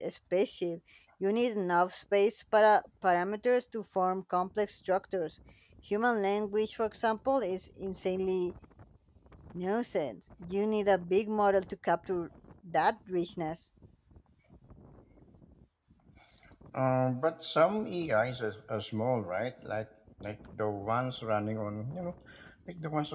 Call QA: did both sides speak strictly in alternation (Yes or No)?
Yes